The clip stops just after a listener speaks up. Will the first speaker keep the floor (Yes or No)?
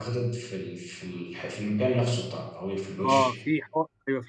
No